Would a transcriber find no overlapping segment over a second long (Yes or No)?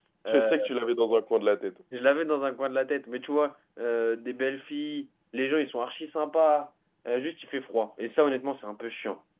Yes